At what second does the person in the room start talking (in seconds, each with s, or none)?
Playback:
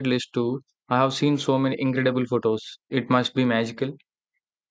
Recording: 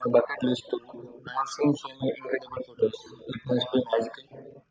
none